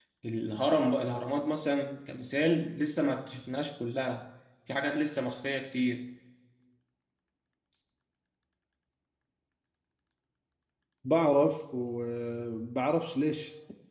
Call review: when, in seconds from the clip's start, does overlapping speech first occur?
none

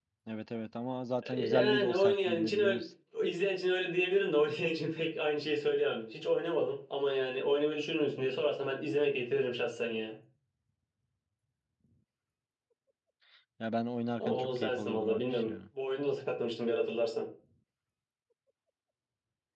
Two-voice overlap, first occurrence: 1.3 s

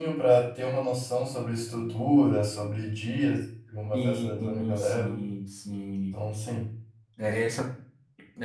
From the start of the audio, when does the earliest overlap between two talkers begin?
3.9 s

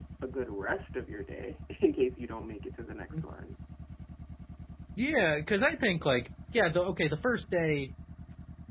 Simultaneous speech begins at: none

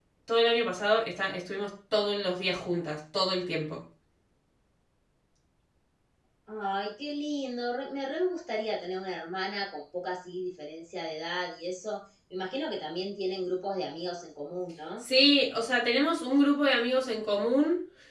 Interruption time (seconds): none

